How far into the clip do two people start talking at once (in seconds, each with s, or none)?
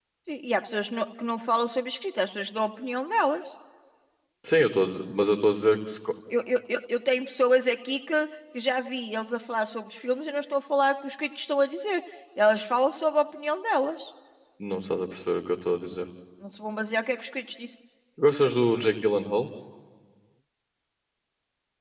none